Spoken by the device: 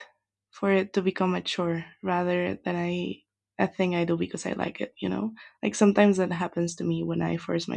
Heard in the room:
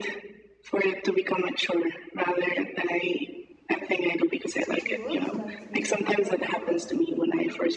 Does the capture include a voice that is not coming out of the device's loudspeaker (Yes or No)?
Yes